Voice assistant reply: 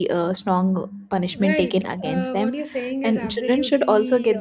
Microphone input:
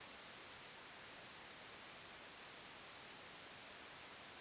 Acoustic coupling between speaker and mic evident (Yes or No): No